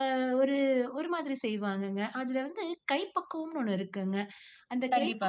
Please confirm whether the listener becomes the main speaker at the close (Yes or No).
No